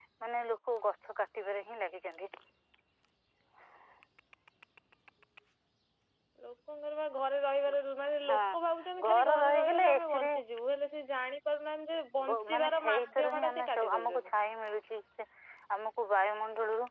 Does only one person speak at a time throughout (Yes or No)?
No